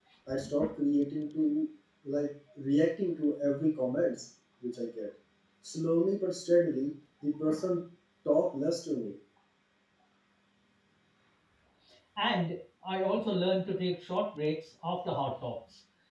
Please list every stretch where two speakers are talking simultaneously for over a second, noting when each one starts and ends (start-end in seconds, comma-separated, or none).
none